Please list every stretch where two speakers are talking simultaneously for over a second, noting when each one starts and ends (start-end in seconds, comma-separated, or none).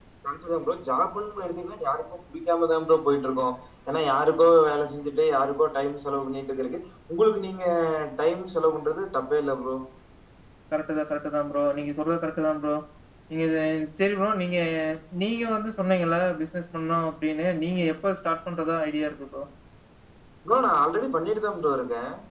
none